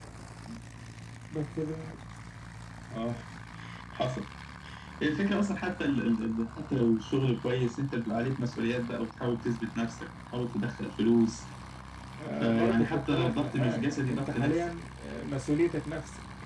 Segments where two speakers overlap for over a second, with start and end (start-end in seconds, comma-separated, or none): 12.3-14.6